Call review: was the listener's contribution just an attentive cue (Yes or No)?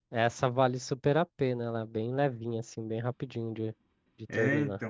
No